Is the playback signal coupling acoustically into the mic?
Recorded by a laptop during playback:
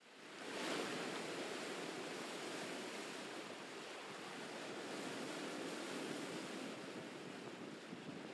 No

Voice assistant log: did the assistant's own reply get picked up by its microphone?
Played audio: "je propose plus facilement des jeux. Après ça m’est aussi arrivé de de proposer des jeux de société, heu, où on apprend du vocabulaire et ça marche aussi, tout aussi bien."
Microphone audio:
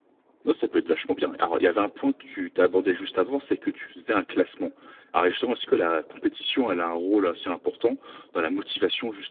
No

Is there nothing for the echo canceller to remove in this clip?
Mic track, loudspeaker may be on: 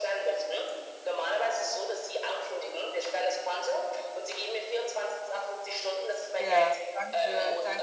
No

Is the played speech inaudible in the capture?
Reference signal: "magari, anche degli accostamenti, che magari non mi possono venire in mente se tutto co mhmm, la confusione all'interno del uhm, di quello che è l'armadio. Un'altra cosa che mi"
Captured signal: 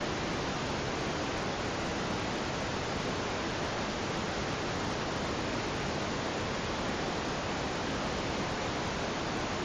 Yes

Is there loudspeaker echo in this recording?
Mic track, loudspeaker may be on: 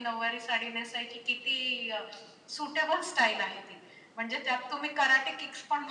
Yes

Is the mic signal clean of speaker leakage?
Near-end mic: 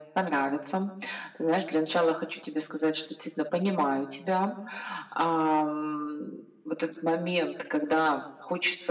No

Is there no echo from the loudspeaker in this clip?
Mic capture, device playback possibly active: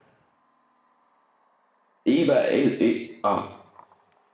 Yes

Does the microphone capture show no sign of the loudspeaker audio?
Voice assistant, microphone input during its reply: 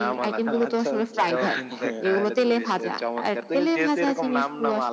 No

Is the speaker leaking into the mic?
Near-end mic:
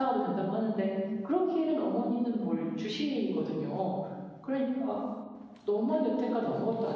No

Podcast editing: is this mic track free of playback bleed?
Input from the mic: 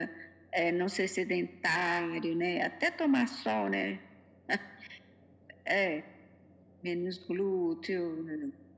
No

